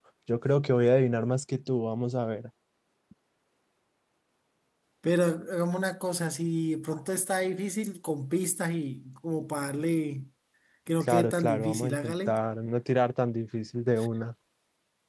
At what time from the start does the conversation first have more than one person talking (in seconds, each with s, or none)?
11.0 s